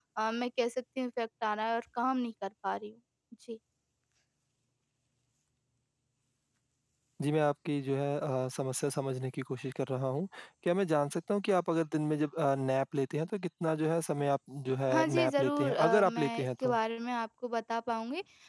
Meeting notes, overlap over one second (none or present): present